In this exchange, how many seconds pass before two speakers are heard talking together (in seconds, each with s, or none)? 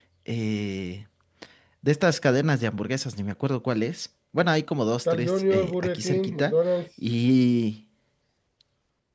5.0 s